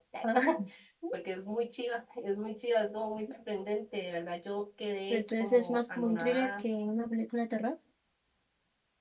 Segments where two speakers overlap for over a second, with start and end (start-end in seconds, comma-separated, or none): 5.1-6.6